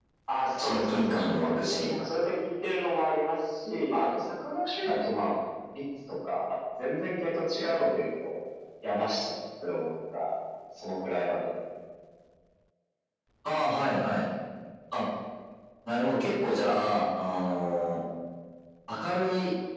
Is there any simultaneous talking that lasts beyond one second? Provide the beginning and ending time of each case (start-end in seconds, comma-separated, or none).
0.6-1.9